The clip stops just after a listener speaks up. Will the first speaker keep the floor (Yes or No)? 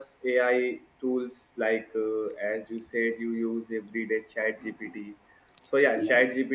Yes